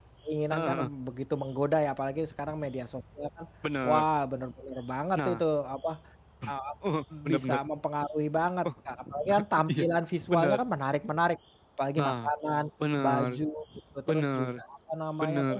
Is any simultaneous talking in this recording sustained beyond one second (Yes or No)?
No